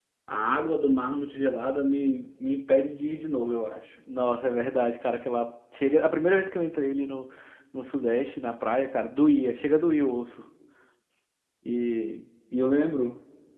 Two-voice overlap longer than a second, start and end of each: none

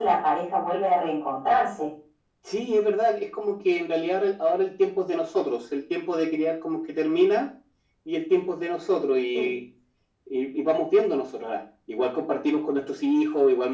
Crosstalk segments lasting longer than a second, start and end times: none

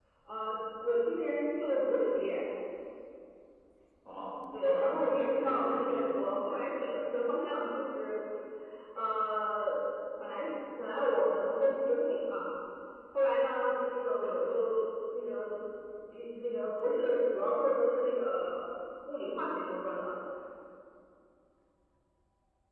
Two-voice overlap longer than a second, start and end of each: 4.6-6.3

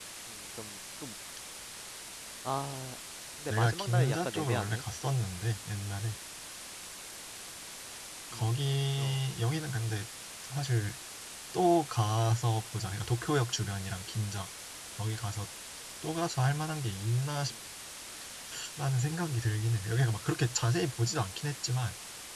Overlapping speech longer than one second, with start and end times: 3.5-4.8

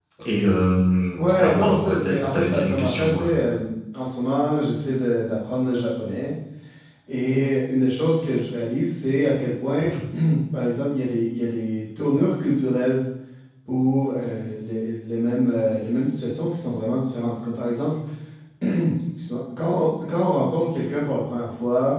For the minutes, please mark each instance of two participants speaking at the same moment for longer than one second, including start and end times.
1.1-3.4

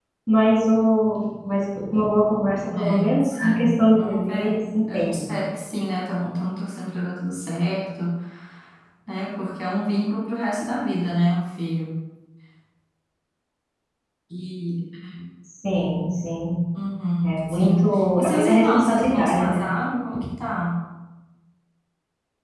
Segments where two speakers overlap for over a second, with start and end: 2.8-5.3, 17.2-19.6

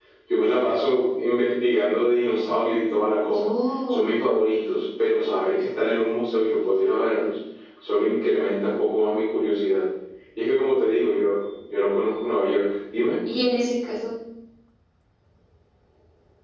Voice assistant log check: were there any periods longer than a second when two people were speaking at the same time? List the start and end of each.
none

